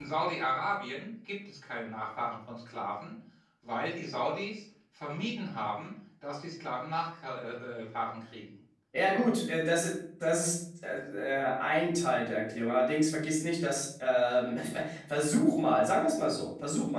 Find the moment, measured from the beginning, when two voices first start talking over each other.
none

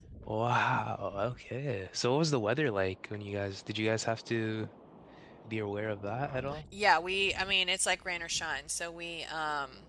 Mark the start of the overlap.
none

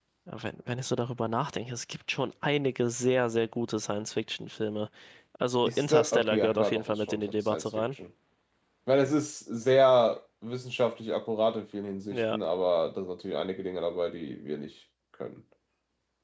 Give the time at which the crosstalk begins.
6 s

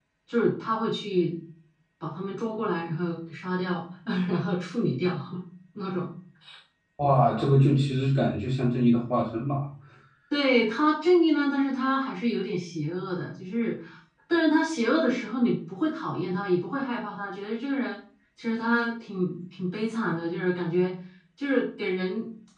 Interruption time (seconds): none

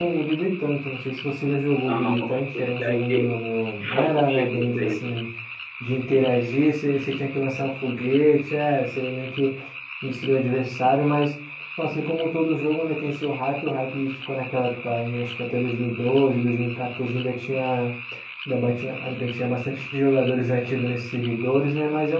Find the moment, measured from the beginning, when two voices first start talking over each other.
2 s

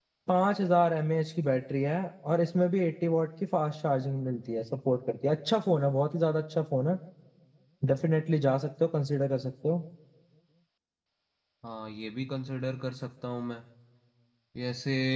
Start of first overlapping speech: none

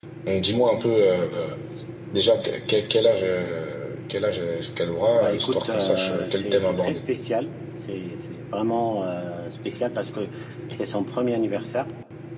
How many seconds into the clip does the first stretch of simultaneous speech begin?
5 s

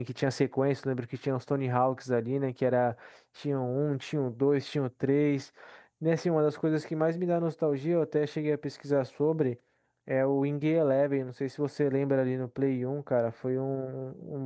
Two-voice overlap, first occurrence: none

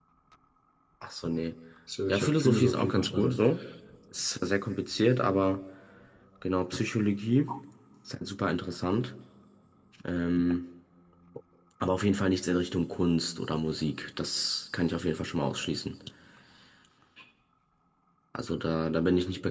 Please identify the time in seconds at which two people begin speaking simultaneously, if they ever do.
2 s

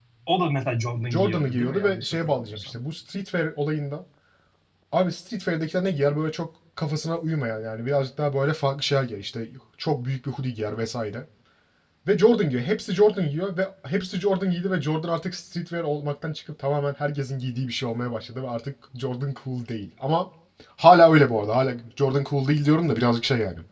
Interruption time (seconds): 1 s

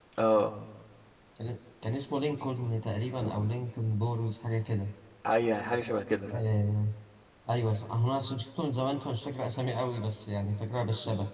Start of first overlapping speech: none

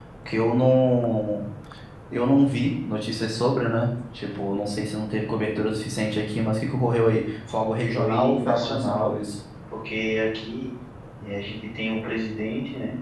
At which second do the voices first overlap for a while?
8 s

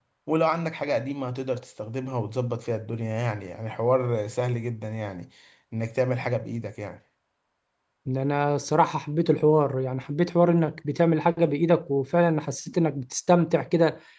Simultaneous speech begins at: none

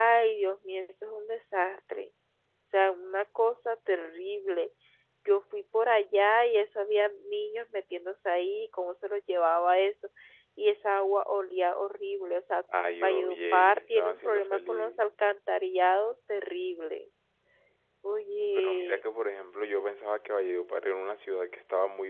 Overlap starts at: 13 s

